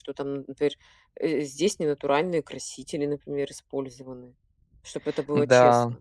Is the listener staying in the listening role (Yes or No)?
No